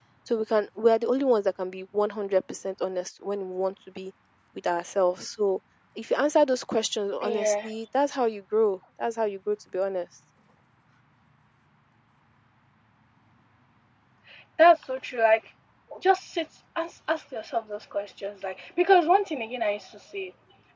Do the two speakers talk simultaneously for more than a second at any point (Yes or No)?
No